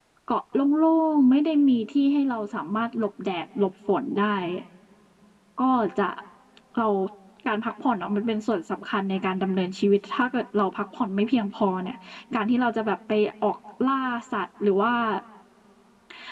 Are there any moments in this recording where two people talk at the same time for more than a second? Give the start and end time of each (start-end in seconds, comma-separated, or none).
none